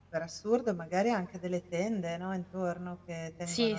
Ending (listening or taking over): listening